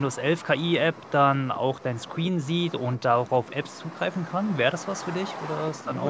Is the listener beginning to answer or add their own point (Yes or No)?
Yes